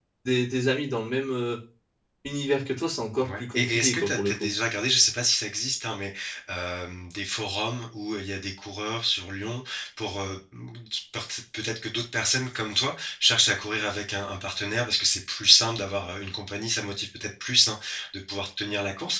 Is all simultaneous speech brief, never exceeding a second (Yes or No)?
No